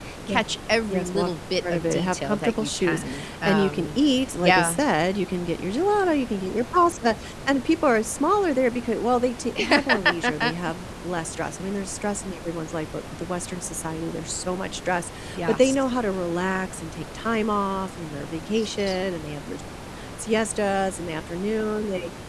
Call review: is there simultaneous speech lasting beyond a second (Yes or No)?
Yes